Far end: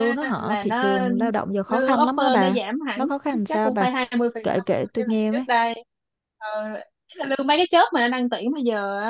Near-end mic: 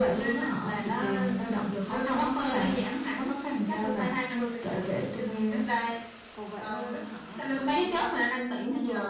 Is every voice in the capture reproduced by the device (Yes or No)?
No